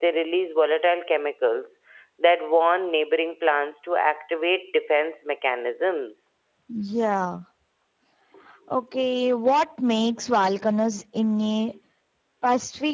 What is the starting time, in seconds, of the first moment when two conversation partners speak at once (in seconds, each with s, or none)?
none